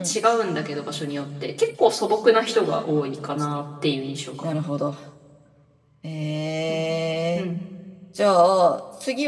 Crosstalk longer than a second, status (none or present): none